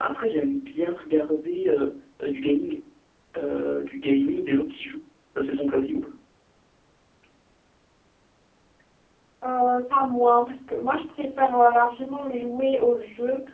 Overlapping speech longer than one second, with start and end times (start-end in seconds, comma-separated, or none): none